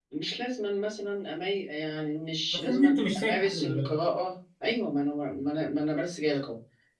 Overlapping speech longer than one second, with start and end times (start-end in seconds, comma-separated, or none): 2.5-3.9